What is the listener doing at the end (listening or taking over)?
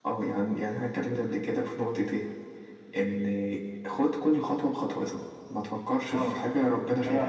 taking over